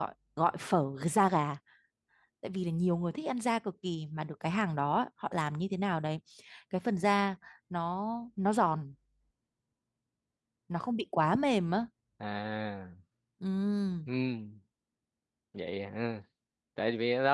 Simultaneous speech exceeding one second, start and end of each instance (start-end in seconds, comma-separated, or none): none